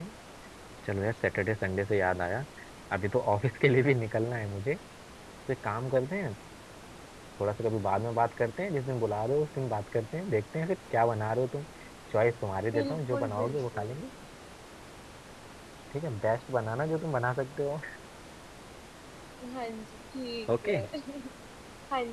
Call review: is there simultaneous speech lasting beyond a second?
Yes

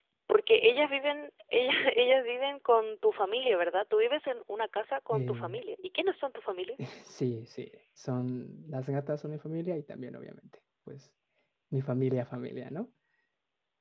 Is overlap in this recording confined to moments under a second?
Yes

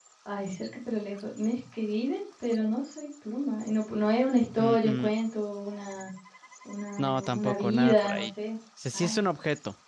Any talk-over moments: Yes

